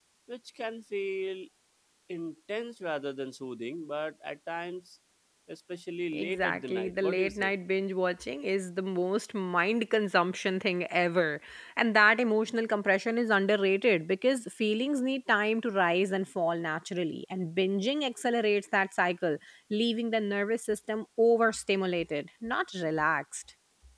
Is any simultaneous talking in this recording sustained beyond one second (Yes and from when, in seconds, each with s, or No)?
Yes, from 6.1 s